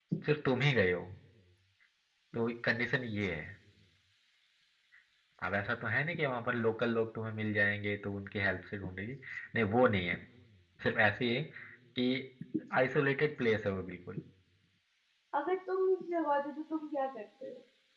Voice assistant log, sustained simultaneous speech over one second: none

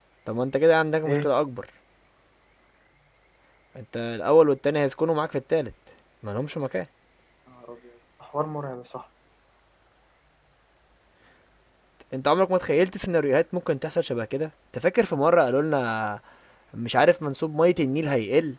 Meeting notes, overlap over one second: none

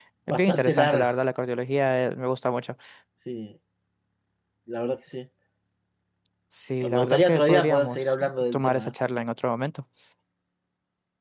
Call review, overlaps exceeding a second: present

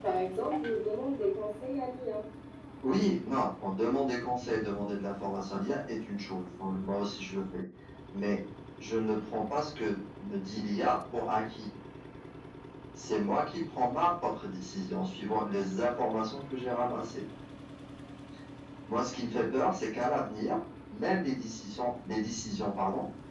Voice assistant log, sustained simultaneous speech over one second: none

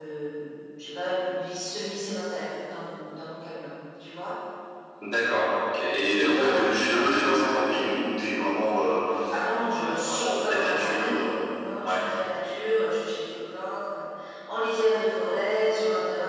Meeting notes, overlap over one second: present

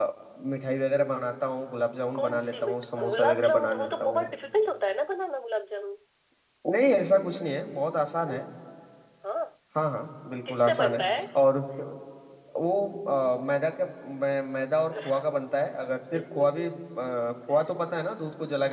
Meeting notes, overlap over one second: present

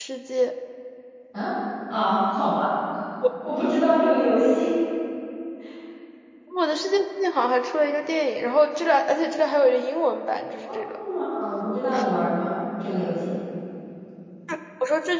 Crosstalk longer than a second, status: none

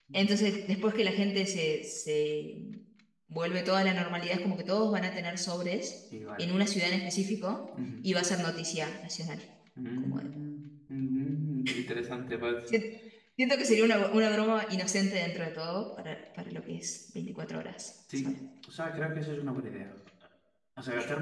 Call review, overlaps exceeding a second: none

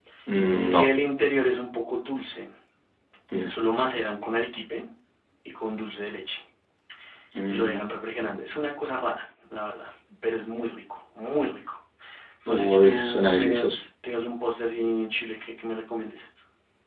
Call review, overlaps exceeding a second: present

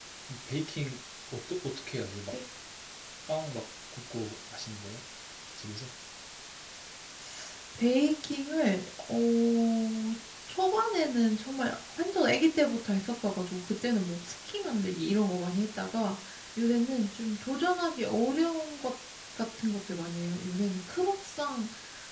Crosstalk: none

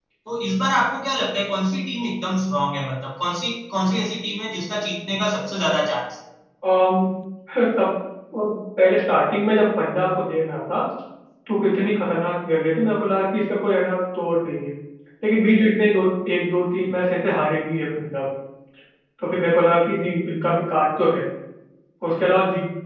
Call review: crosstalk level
none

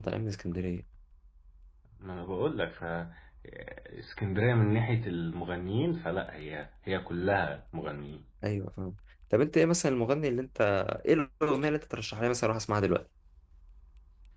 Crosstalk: none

